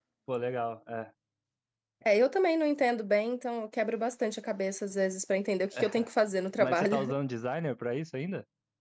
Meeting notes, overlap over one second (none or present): none